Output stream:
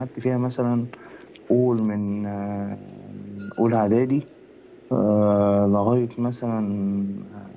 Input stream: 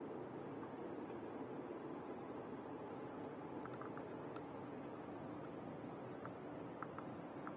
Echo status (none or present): none